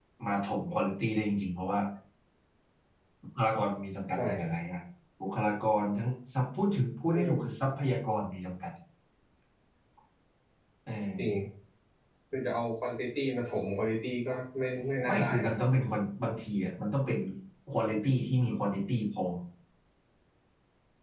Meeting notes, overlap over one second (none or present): none